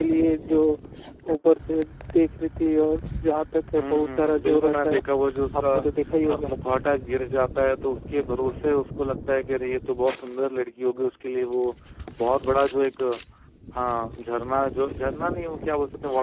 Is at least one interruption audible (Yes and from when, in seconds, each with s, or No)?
Yes, from 3.8 s